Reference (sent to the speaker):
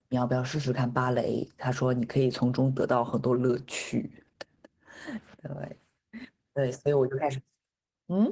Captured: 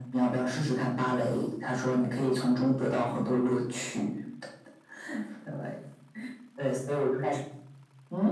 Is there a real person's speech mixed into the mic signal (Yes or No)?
No